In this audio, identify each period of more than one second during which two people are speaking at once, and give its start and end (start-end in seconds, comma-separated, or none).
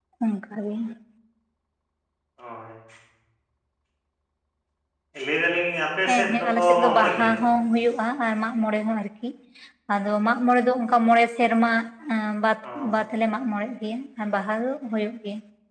6.1-7.5